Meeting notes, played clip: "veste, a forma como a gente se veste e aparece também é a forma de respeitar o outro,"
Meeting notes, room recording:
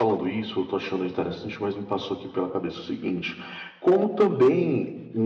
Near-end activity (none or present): present